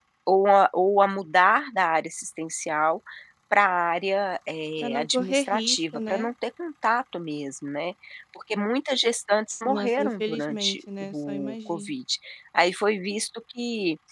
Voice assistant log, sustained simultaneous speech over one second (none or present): present